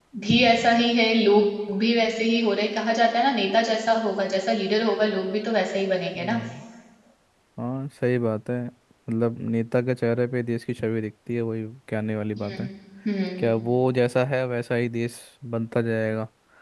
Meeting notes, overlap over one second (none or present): none